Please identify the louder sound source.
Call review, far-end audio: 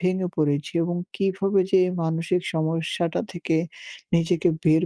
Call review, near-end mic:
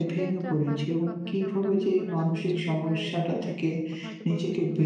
echo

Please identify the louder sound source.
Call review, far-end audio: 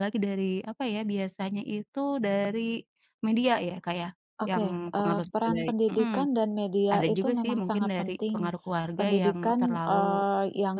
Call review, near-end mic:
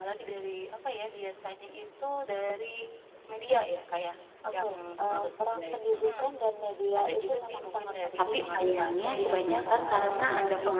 user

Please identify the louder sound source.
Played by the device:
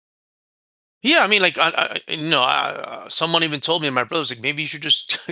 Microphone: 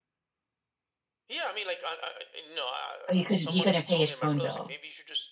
user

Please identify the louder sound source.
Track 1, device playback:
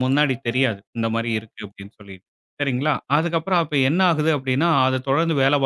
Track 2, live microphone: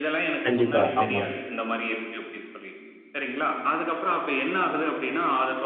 user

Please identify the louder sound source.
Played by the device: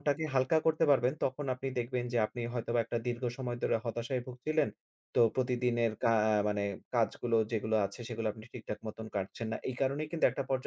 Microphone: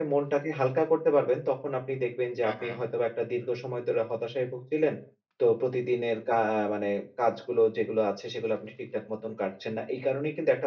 echo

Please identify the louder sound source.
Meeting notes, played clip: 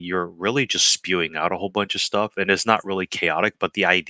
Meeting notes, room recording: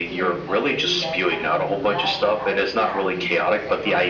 echo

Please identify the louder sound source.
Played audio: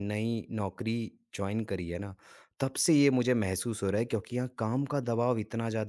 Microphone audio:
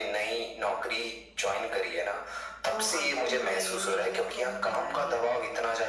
echo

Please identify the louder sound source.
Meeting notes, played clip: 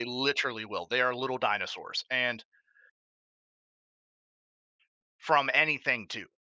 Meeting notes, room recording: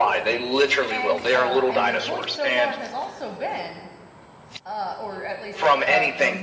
echo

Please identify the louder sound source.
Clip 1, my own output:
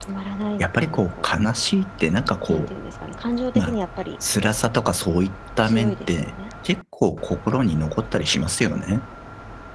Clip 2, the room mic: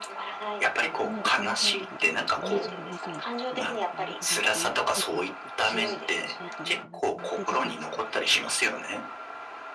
echo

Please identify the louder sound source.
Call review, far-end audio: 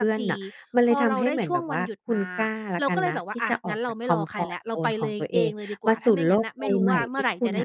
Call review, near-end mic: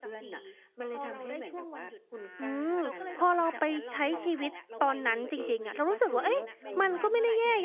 user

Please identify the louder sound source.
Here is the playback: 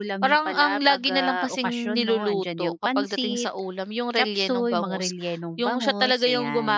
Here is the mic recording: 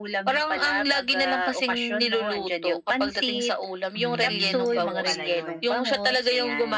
echo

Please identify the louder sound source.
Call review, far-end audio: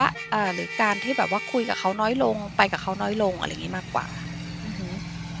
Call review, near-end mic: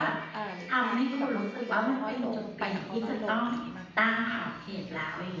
user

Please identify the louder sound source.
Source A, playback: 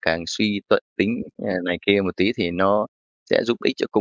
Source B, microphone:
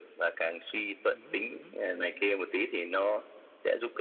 echo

